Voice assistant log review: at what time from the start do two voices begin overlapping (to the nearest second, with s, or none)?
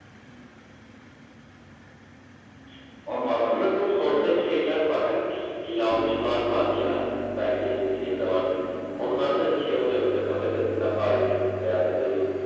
3 s